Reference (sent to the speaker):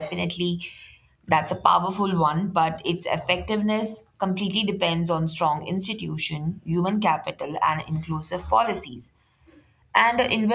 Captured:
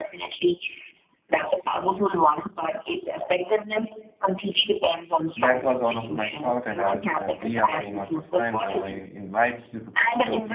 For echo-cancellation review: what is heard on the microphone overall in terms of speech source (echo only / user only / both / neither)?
both